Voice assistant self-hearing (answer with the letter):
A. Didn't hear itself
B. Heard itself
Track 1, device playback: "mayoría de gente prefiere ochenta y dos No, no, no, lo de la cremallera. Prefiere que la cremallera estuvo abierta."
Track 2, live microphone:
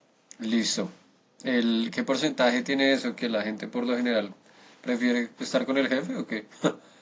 A